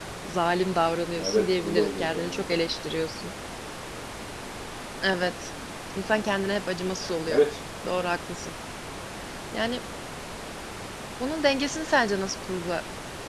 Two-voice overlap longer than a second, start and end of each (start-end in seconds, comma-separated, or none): 1.1-2.6